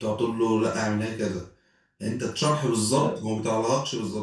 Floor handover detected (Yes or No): No